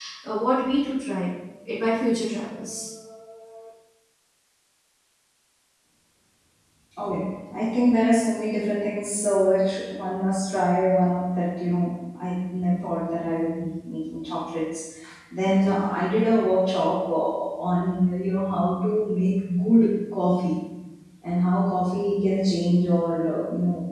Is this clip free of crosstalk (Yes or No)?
Yes